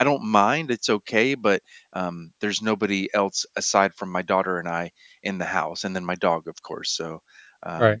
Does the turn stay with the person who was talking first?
No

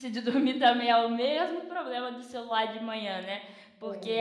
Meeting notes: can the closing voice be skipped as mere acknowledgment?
Yes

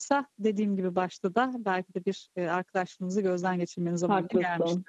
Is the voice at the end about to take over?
Yes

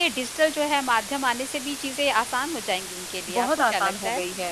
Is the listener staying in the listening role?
No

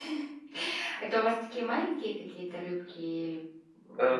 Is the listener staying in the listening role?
No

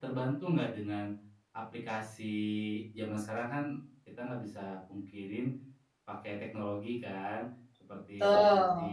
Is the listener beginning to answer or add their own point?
No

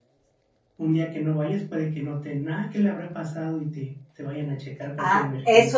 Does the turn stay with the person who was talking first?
No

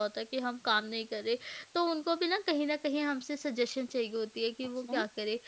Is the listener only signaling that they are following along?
Yes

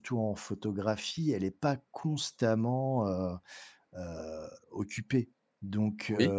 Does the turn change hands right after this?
No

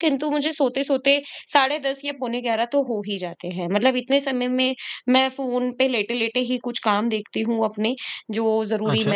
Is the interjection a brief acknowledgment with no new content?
Yes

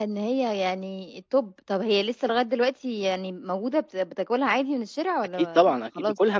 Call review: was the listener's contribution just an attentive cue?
No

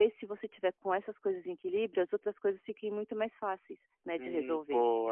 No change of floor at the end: No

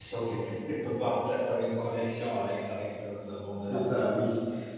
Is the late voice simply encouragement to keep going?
No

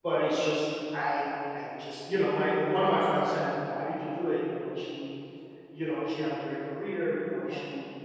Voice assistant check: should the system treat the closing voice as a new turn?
No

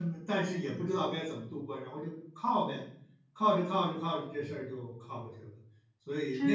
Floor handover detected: Yes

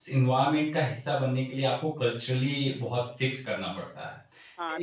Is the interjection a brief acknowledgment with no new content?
No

